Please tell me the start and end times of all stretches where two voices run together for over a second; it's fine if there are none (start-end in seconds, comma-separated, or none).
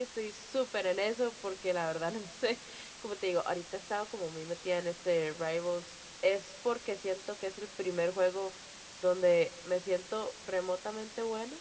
none